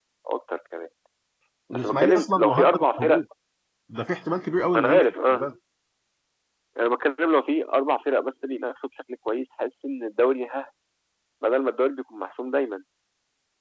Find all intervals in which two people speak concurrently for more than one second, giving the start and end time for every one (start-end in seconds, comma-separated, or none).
1.7-3.2